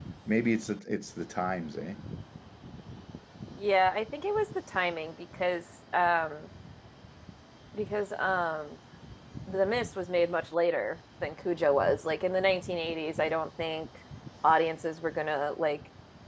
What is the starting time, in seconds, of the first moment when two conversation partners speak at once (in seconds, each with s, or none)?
none